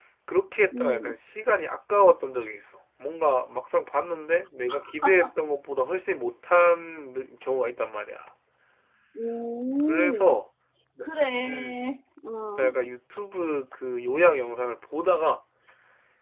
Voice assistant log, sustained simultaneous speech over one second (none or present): none